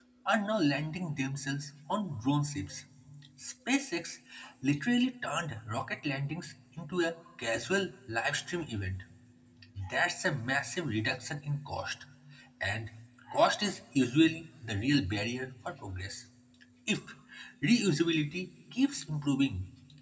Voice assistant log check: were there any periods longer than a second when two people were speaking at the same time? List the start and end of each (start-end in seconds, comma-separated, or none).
none